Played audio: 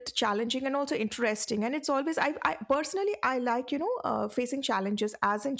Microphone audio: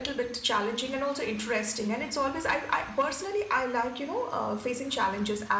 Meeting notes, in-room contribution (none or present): none